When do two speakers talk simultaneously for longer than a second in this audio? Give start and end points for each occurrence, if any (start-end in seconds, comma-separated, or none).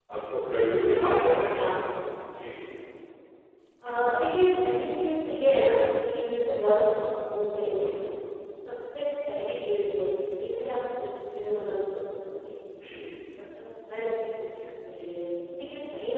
none